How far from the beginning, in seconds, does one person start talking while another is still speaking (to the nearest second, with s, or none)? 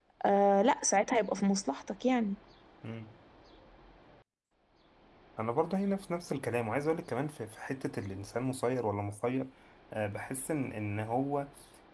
none